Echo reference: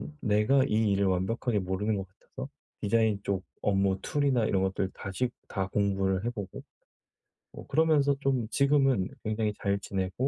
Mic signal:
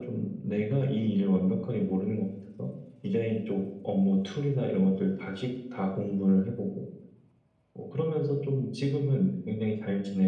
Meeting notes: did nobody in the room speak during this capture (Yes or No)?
Yes